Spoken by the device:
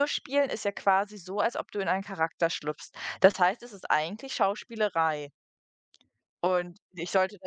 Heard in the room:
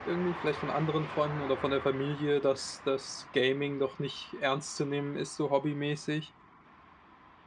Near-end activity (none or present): present